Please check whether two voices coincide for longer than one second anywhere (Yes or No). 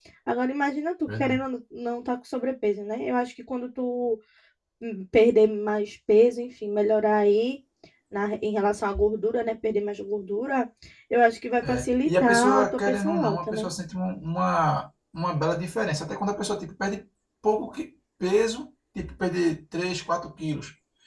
Yes